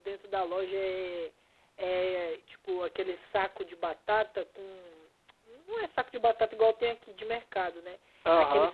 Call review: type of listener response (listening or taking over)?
listening